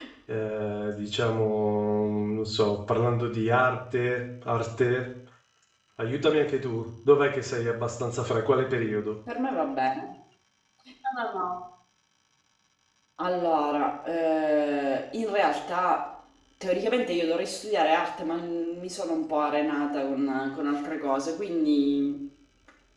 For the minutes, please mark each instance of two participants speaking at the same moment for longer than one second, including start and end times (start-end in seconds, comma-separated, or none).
none